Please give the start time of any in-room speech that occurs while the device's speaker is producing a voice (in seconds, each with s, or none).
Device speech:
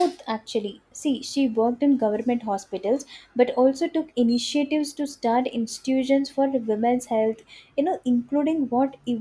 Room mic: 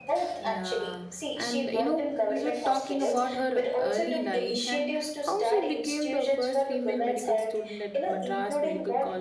0.4 s